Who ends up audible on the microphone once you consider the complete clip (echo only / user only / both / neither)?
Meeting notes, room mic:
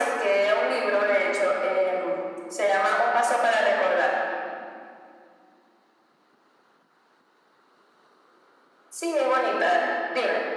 echo only